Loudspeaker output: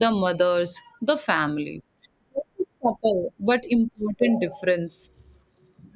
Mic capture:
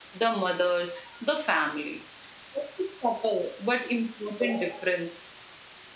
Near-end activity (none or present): none